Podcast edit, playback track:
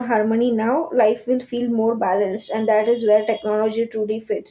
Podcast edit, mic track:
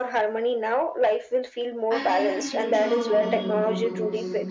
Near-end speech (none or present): present